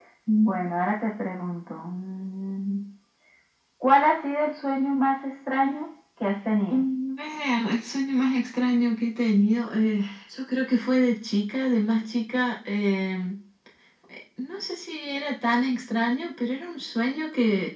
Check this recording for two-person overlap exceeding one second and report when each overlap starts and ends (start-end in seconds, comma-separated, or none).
none